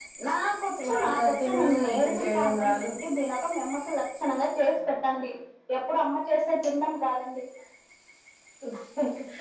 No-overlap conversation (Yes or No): No